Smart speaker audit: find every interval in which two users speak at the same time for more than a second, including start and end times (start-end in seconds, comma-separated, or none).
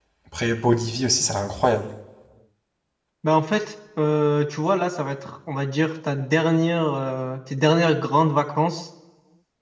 none